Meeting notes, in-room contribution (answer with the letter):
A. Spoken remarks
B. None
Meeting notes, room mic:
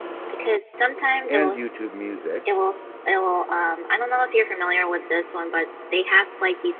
A